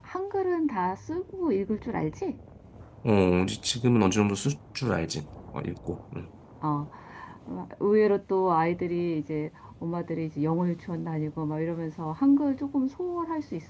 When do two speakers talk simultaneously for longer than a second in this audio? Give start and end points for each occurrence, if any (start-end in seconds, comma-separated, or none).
none